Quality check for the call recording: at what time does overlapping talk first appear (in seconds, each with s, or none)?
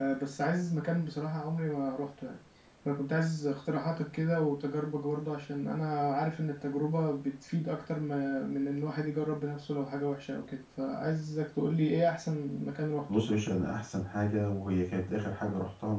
none